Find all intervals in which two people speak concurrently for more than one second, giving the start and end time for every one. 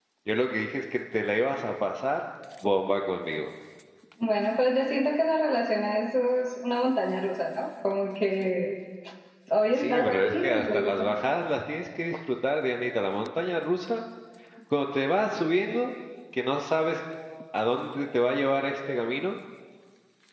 9.7-11.2

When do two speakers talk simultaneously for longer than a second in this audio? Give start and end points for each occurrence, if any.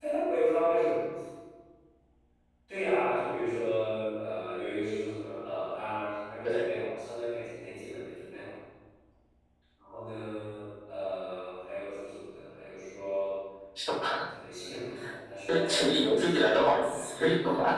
15.5-17.0

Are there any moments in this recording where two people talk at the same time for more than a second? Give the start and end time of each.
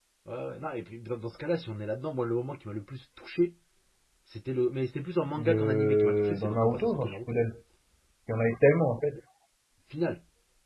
5.5-7.4

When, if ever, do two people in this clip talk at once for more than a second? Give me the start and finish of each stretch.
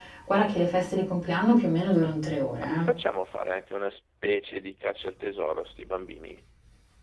none

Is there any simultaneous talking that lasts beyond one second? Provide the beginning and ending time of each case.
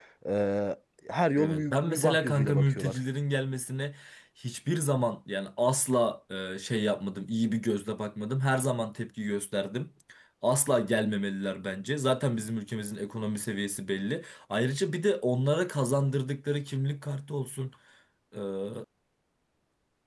1.4-3.0

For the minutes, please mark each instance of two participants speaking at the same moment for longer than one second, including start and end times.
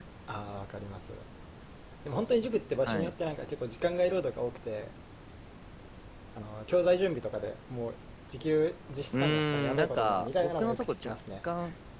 9.1-11.1

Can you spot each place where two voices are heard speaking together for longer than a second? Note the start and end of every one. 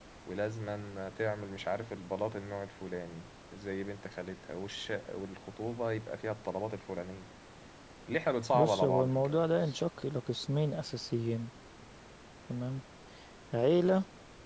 8.5-9.8

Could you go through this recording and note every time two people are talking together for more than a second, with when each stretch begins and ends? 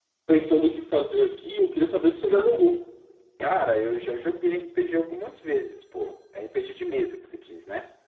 none

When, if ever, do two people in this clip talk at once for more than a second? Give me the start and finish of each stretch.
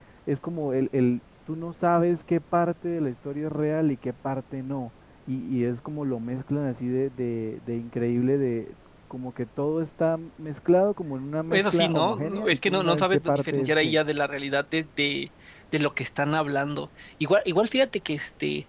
11.5-14.0

